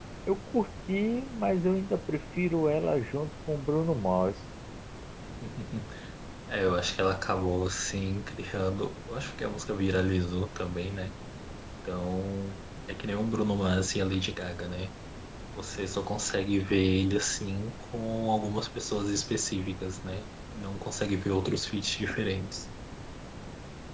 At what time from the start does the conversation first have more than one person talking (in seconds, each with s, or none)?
none